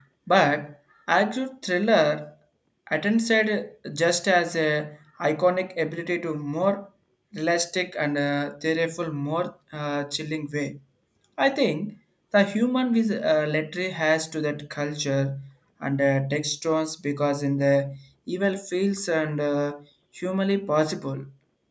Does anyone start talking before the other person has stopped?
No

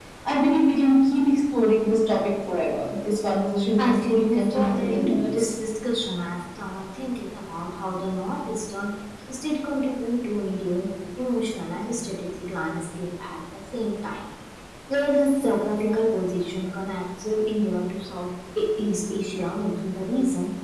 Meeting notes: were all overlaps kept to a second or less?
No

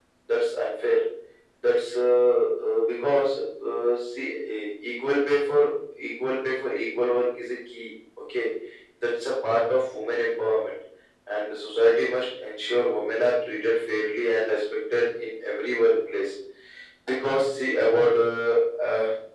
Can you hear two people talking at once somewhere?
No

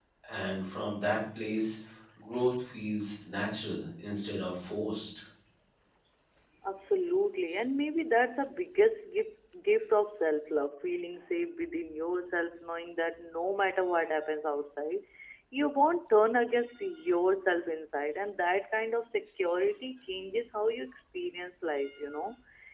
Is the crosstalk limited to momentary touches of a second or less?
Yes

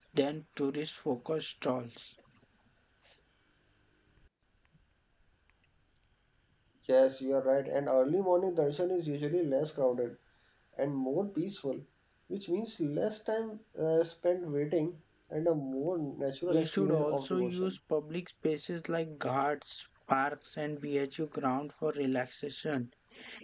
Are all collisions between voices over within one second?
No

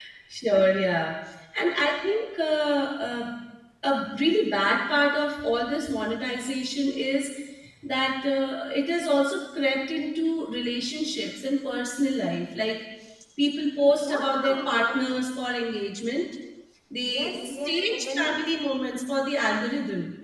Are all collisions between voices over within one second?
No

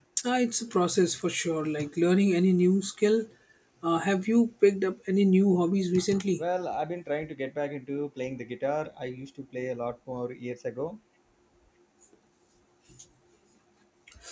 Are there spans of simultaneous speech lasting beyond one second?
No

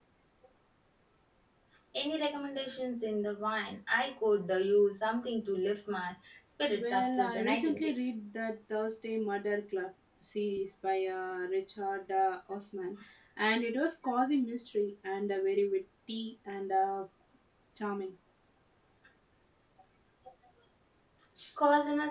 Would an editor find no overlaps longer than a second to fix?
No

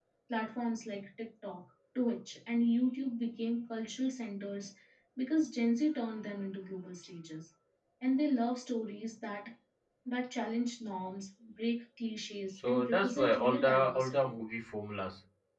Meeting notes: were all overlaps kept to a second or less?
No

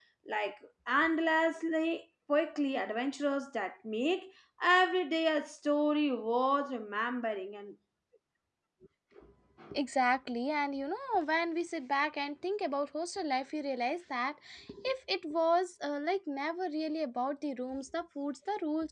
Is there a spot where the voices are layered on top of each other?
No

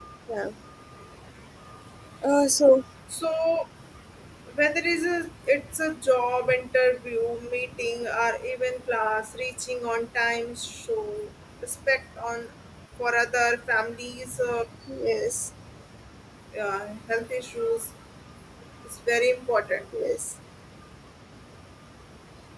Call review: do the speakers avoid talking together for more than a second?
Yes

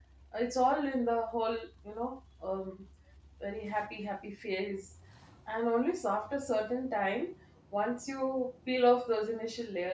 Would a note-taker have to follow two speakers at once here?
No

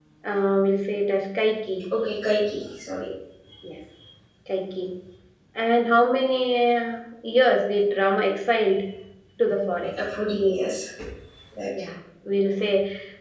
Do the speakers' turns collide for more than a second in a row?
No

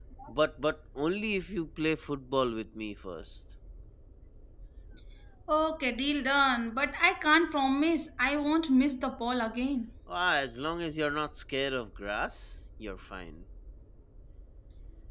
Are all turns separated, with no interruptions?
Yes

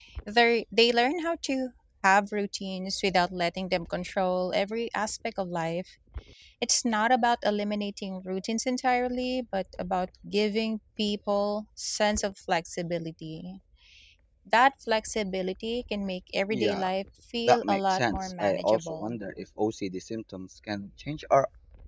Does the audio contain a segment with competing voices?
Yes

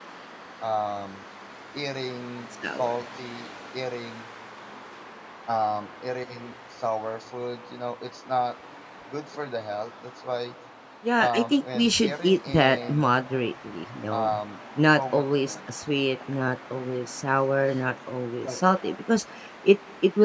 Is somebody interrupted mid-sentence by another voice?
Yes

